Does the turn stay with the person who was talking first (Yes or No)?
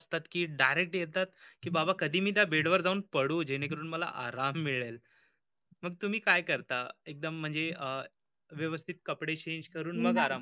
No